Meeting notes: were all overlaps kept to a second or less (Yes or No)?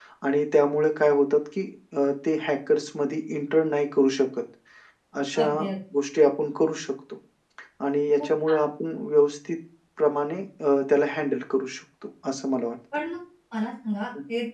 Yes